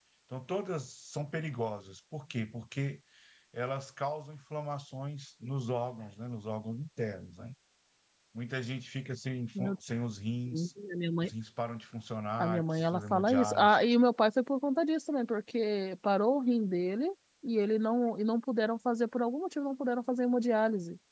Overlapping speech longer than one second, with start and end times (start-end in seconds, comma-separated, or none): 12.4-13.8